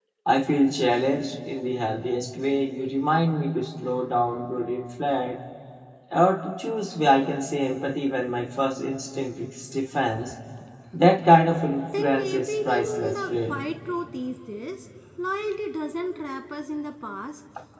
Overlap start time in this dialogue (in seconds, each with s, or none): 11.9 s